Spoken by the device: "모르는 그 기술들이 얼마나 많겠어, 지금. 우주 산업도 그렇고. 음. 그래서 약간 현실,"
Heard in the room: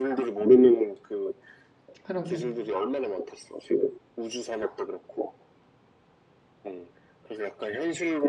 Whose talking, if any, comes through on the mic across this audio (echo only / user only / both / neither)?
both